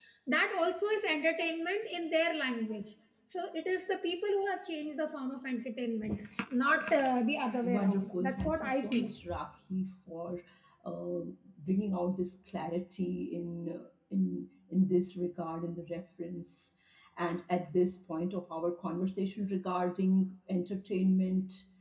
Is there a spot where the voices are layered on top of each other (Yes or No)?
Yes